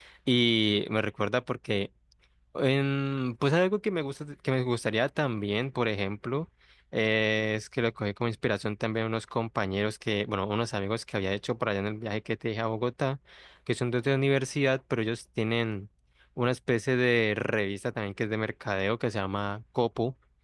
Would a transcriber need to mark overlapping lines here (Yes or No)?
No